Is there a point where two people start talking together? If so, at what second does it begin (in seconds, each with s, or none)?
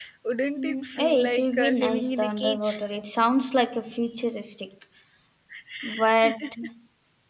0.6 s